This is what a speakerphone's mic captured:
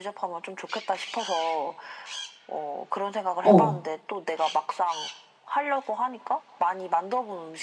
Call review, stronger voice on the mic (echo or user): user